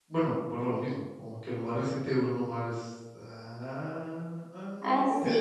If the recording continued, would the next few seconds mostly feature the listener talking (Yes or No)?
Yes